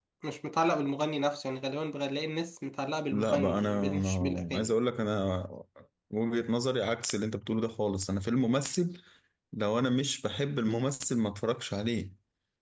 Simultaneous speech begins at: 3 s

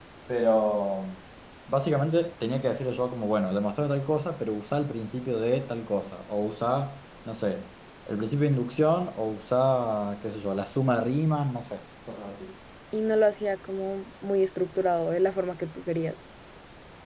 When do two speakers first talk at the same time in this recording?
none

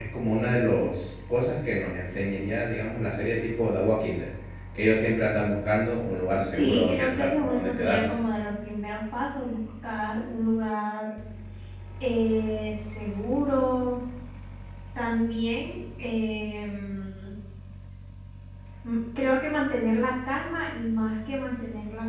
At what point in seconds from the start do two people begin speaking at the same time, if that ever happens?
7 s

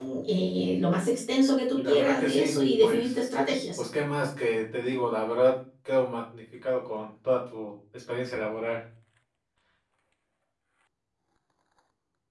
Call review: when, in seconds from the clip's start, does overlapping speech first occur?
2 s

